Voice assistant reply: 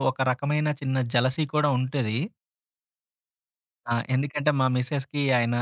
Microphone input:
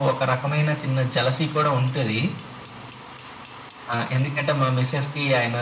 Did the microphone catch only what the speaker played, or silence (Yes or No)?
Yes